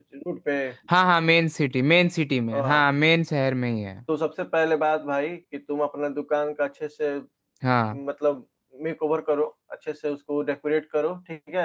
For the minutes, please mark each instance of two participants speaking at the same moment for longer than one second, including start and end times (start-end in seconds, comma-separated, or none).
none